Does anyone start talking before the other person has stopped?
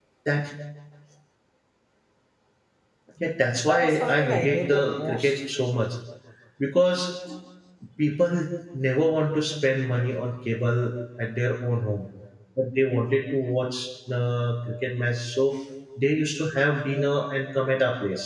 Yes, from 3.6 s

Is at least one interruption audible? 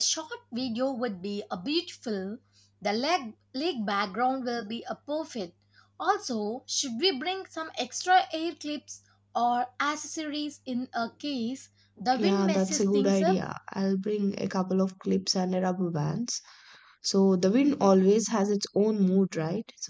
Yes, from 12.1 s

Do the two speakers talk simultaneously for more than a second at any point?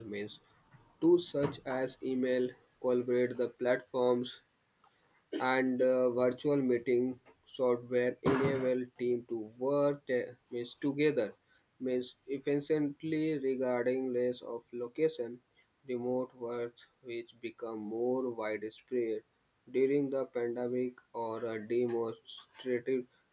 No

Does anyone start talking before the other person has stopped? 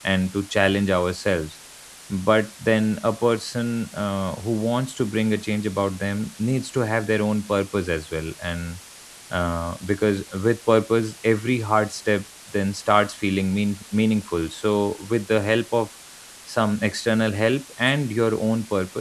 No

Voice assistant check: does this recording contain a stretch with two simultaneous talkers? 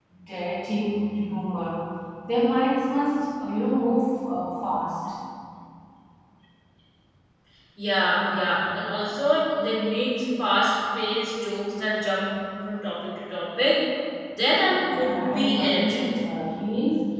Yes, from 14.8 s

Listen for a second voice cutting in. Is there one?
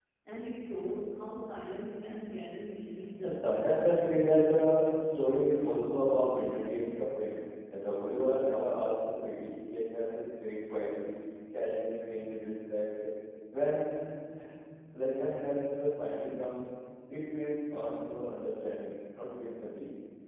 Yes, from 3.2 s

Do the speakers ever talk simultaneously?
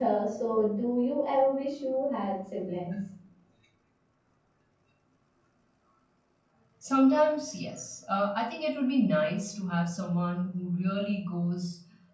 No

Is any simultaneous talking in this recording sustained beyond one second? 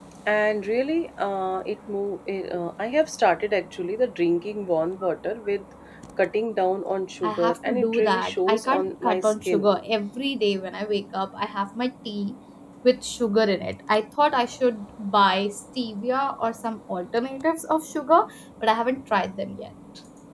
Yes, from 7.2 s

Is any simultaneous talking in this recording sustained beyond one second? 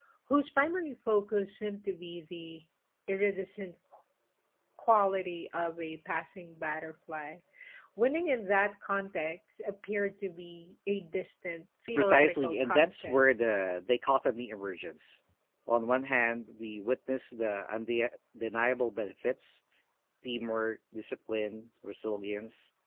Yes, from 12.0 s

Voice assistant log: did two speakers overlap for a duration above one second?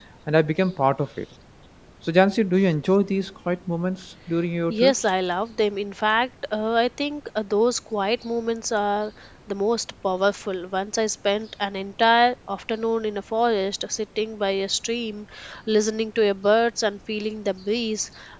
No

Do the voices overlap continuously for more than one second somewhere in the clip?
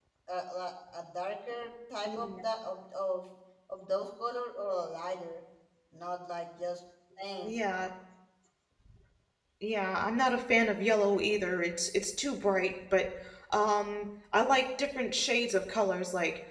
No

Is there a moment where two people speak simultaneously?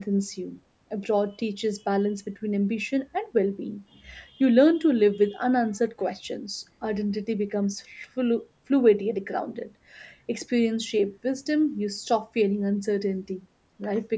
No

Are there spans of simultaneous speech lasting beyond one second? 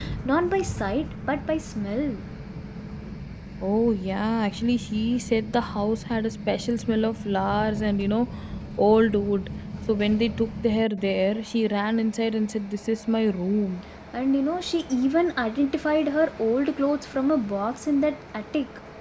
No

